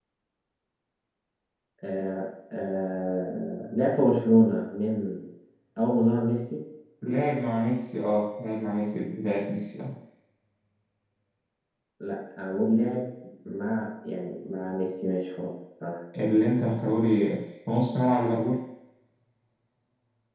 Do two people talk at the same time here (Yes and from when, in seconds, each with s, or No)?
No